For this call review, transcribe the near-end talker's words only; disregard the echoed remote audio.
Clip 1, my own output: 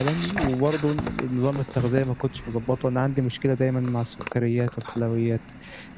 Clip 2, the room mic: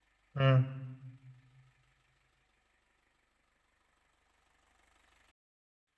امم

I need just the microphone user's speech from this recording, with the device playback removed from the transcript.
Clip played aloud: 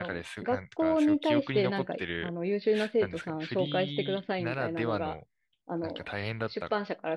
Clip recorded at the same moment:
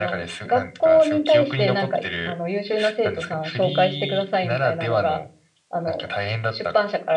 none

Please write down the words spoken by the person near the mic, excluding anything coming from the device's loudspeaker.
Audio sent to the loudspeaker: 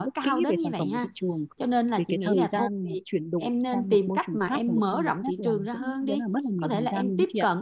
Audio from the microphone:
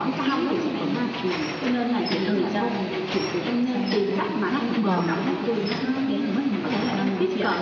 Vâng,

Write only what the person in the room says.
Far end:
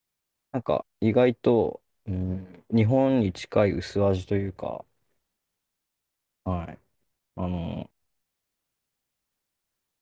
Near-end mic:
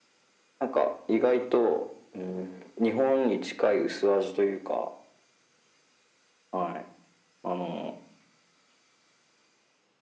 none

